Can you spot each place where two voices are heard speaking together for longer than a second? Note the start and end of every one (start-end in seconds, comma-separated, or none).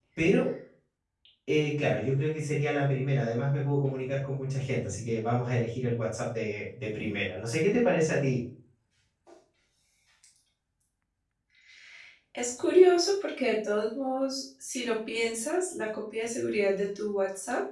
none